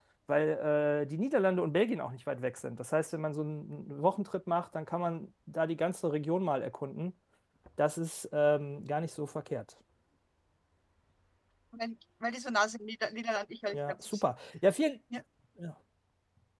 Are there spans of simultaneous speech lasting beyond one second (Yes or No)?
No